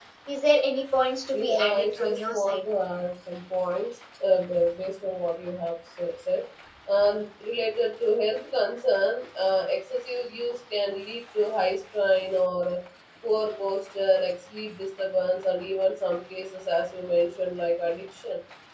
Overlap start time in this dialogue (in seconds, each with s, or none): 1.3 s